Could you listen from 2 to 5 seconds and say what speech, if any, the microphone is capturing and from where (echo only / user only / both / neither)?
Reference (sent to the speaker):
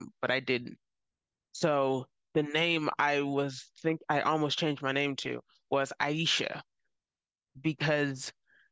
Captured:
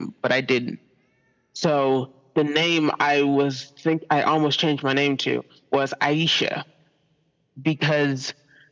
echo only